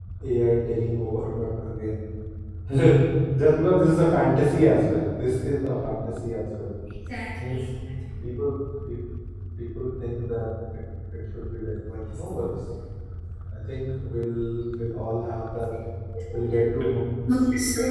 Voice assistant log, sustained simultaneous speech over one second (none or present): none